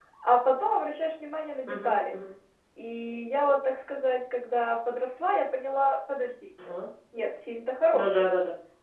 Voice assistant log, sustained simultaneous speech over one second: none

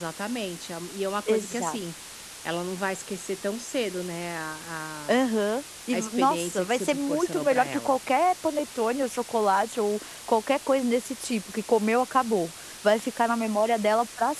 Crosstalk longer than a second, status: present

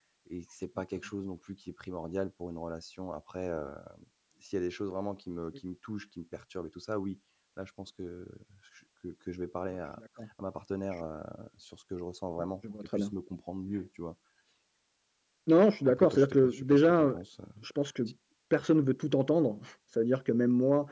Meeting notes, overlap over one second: present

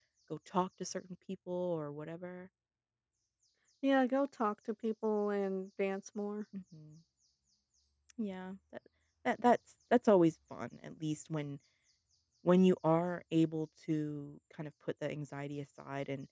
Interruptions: none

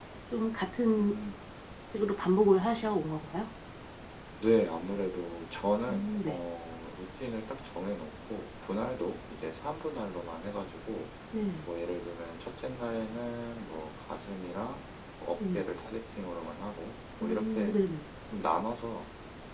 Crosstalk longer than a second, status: none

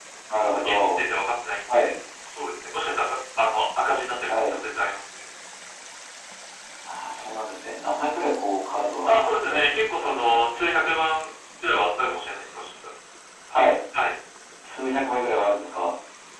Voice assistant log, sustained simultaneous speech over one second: present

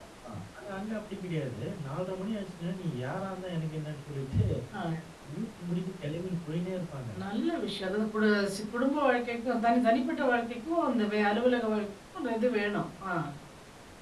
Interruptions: none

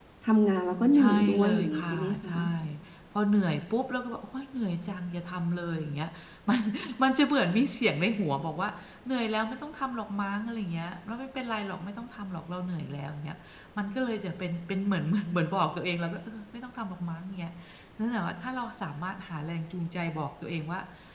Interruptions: present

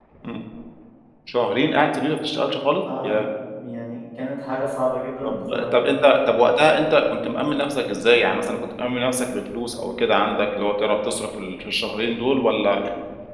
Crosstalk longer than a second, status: none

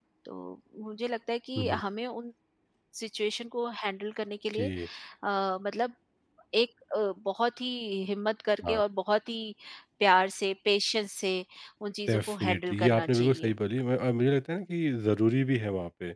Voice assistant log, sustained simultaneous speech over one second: present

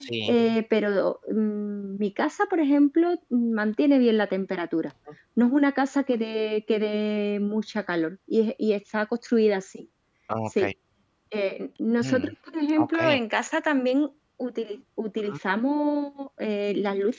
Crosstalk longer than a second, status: none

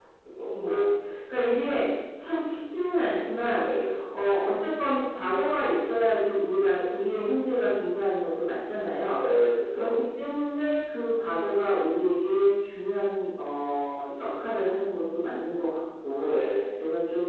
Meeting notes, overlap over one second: none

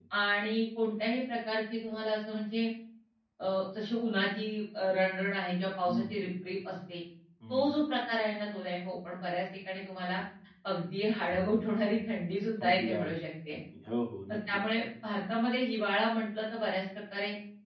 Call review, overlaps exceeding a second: none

